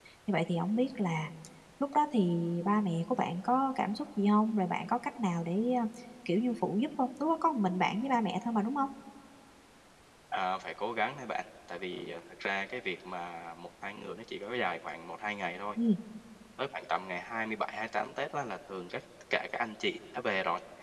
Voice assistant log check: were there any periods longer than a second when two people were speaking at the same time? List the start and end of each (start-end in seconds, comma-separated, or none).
none